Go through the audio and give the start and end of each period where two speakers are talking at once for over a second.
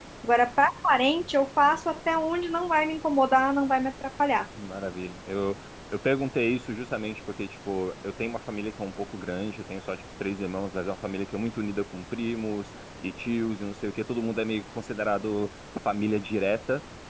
none

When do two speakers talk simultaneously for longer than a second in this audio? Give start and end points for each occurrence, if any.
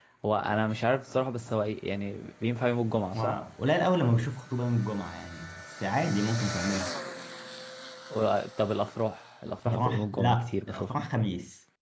9.7-11.1

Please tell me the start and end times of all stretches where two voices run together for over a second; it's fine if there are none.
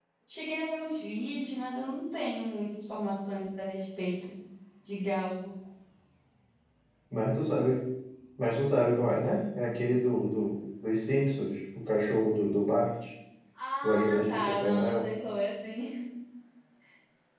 13.8-15.1

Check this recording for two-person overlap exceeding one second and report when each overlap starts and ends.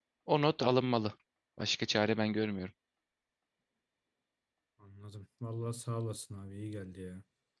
none

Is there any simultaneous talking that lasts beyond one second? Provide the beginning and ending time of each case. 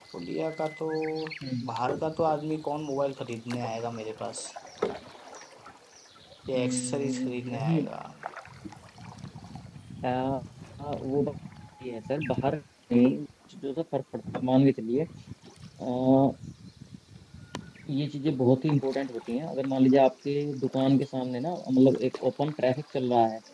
6.5-7.9

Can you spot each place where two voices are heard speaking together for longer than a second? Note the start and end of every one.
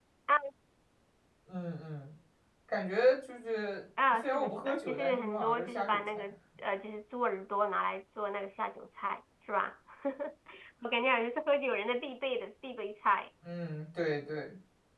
4.1-6.0

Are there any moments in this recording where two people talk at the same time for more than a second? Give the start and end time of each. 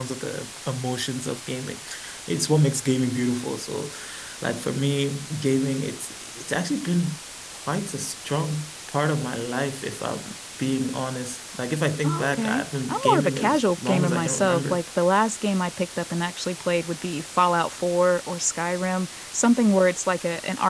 12.0-14.8

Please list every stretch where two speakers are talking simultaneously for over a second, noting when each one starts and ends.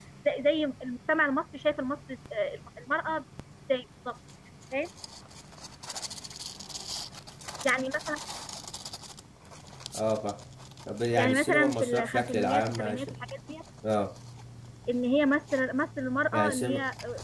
11.2-13.1

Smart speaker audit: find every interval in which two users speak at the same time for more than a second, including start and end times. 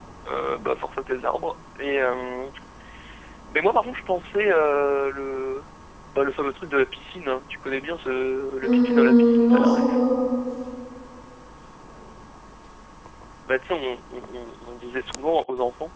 8.6-10.0

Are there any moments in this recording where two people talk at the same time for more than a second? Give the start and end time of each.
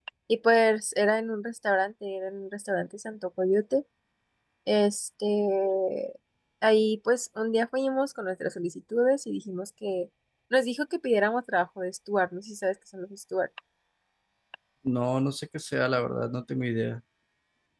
none

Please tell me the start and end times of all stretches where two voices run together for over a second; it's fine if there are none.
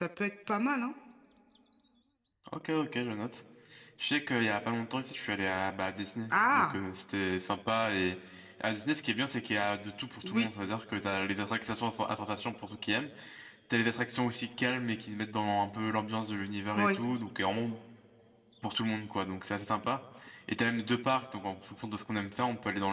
none

